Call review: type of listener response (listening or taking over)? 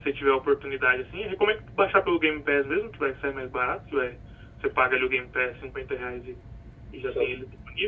listening